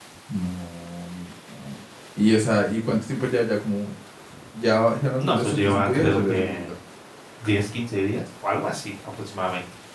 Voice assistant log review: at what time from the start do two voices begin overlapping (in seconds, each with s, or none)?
5.2 s